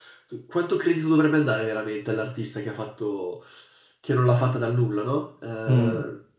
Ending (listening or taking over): listening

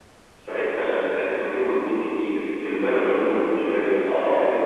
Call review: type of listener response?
taking over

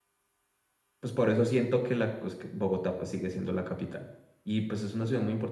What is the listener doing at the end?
listening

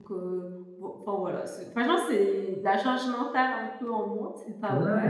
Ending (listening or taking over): taking over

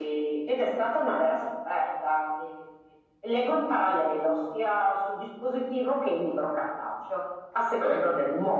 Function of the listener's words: listening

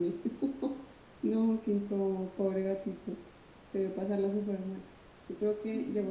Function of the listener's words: listening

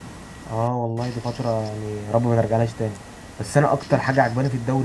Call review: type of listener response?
listening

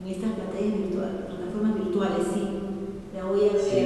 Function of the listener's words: taking over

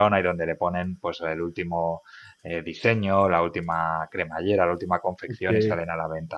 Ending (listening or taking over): listening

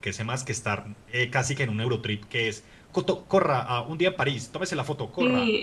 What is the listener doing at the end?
taking over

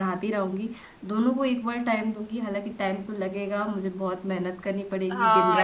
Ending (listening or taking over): taking over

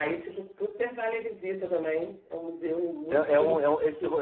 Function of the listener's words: taking over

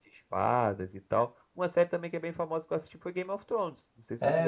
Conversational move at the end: taking over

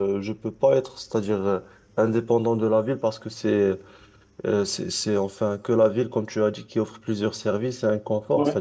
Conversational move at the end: listening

